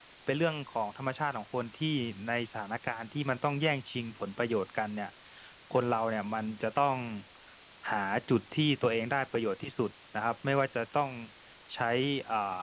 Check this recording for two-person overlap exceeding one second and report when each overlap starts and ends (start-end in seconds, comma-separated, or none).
none